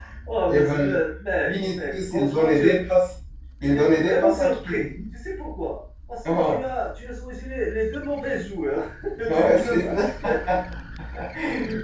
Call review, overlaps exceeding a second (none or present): present